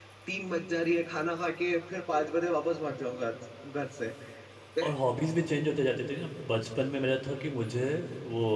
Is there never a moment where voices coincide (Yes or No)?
Yes